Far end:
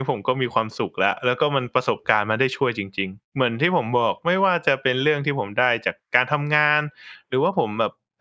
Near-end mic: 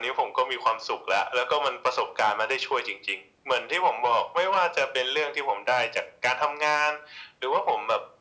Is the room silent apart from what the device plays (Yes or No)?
Yes